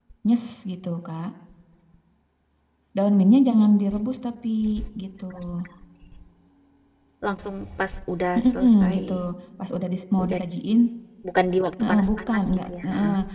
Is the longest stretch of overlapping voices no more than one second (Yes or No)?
No